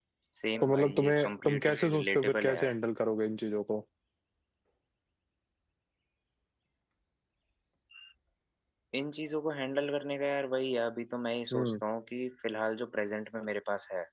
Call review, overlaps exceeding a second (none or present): present